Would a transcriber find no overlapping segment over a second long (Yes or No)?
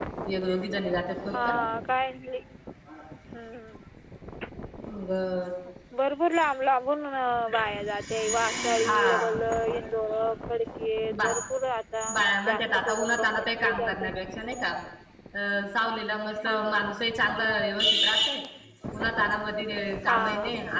No